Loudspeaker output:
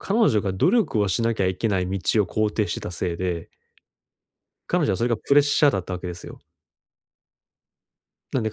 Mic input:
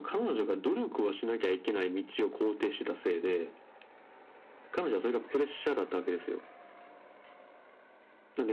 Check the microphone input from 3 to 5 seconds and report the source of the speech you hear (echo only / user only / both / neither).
echo only